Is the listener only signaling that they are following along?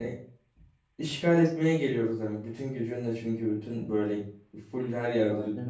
Yes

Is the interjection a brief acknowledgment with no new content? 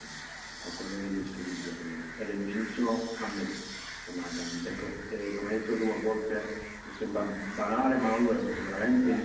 Yes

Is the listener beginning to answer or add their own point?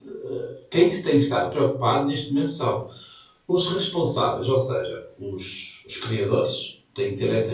No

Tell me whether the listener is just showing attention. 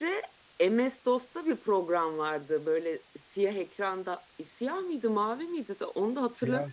Yes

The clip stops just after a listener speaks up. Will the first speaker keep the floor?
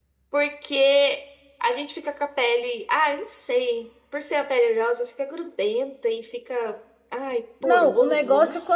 No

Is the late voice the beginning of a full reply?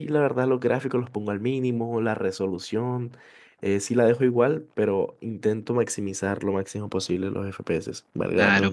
Yes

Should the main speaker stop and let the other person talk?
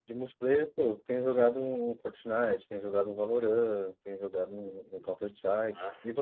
Yes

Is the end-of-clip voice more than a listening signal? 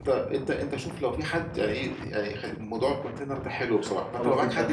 Yes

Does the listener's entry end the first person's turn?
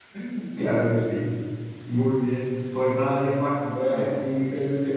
No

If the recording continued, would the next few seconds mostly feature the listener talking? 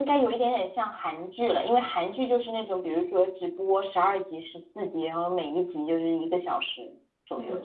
Yes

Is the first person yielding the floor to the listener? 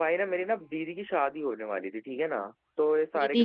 No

